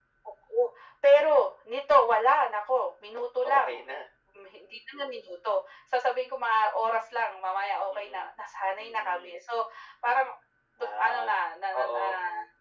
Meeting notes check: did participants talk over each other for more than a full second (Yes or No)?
No